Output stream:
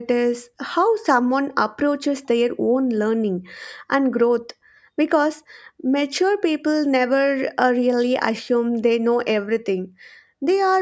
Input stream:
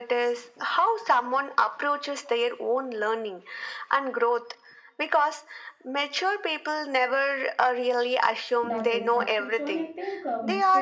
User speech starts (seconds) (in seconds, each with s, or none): 8.6 s